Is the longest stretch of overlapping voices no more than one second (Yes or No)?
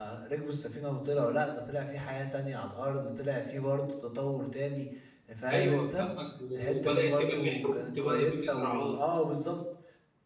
No